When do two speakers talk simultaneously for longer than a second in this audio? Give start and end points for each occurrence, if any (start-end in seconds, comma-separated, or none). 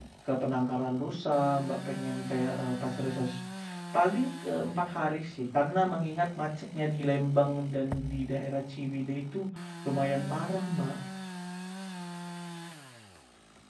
none